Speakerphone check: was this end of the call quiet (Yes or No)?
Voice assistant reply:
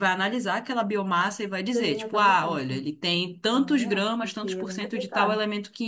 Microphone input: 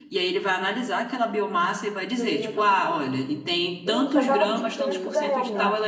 No